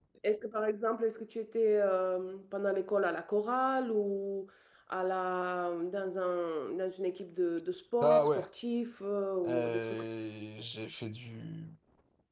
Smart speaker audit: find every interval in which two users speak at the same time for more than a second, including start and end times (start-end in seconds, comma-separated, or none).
none